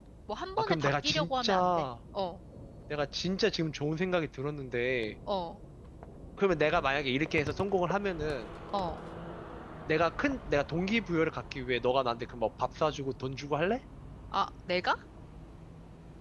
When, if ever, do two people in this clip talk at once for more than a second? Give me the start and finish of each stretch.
0.6-1.9

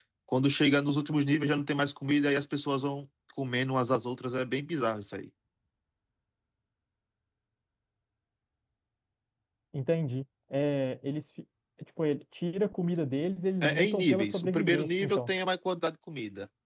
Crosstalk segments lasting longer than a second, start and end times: 13.6-15.3

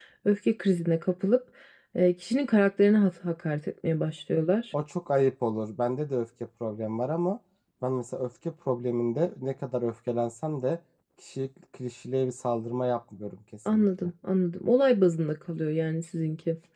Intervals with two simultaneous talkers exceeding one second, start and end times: none

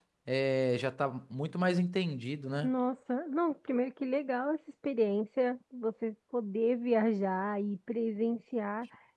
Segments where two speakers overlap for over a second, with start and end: none

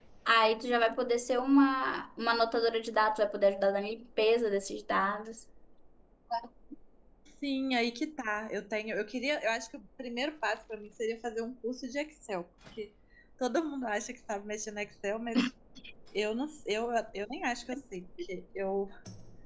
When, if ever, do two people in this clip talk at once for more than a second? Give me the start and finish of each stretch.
none

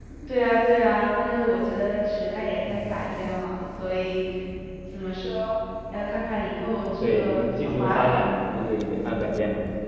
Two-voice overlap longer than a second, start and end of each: 7.0-8.3

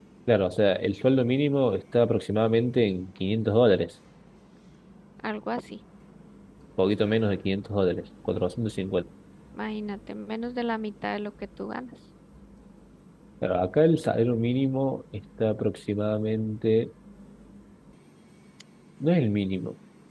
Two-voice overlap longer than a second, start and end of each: none

